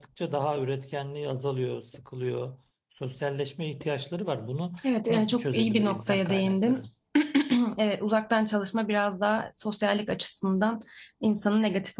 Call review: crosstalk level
present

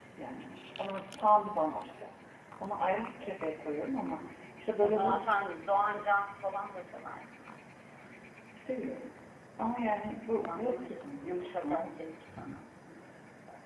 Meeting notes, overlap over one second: none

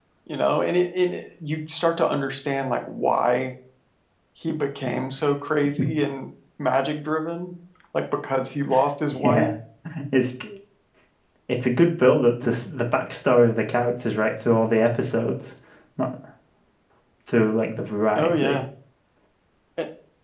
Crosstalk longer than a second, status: none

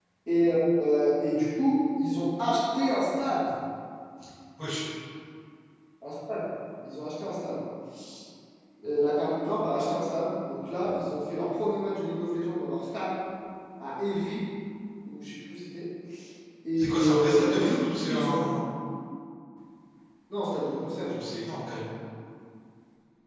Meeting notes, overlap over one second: present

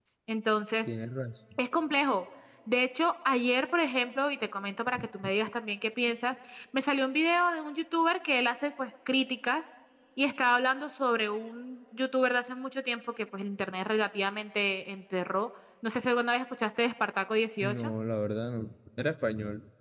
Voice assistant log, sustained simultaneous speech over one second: none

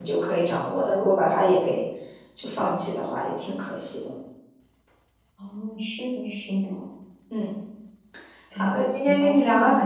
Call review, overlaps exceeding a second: present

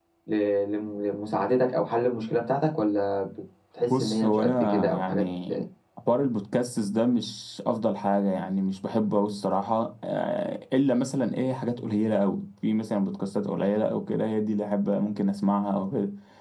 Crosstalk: present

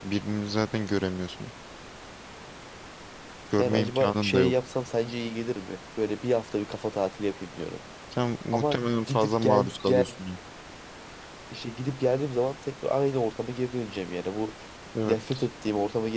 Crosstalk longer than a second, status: present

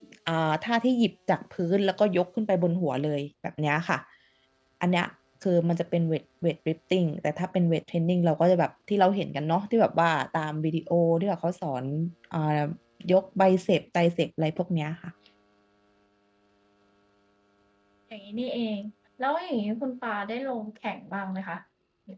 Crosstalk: none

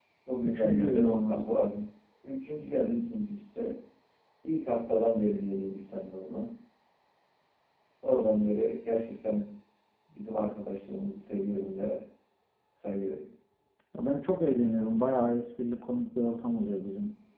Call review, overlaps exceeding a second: present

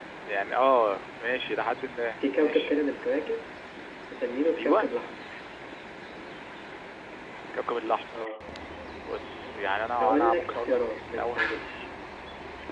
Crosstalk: present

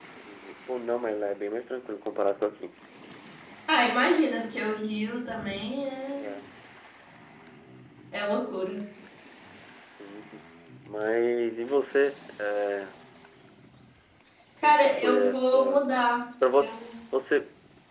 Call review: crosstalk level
present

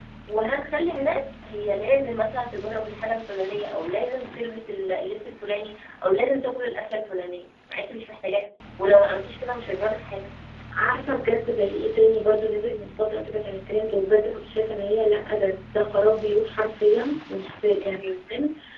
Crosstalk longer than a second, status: none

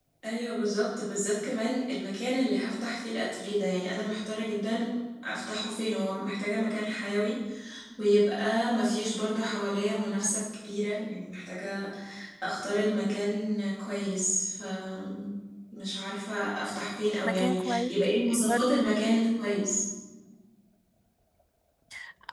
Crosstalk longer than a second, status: present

